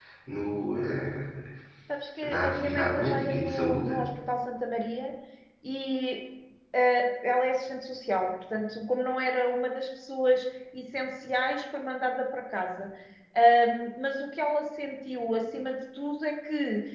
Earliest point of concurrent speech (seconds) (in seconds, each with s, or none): 2.2 s